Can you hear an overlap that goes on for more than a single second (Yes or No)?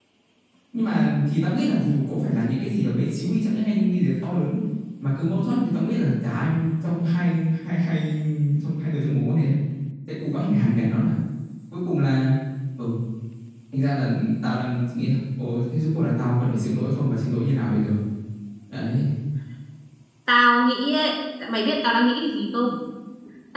No